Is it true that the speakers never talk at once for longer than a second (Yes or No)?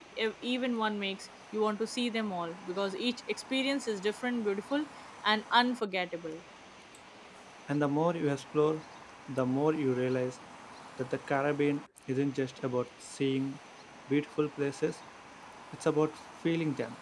Yes